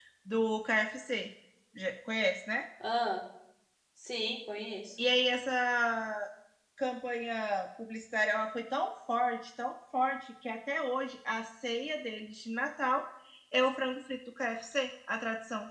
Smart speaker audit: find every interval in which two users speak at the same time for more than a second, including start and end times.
none

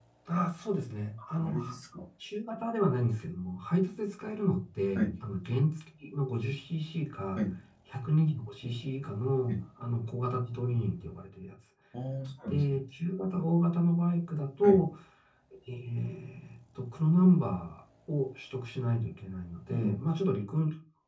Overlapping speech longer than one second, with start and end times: none

